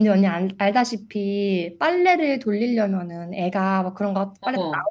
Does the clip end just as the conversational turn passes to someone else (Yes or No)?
No